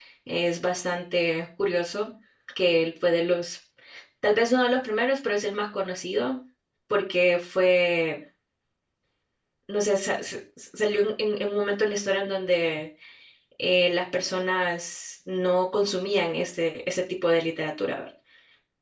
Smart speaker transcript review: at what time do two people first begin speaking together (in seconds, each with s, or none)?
none